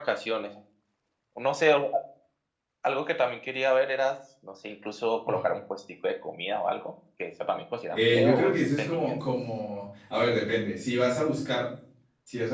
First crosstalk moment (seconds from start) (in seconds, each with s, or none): 7.9 s